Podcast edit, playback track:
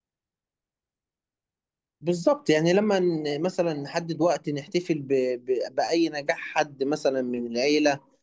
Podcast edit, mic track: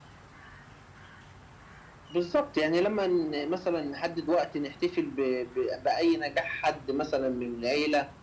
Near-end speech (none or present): none